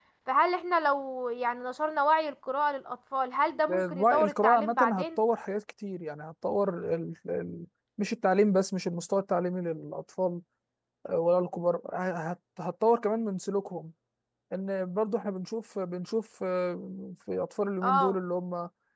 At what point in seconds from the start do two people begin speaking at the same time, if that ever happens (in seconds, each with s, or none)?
3.7 s